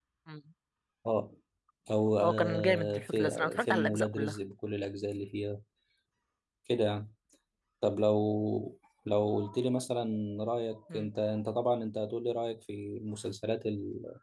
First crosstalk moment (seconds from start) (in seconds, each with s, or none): 2.2 s